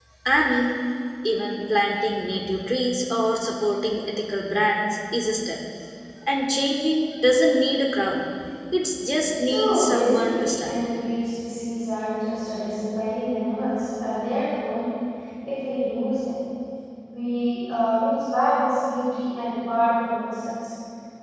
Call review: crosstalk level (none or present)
present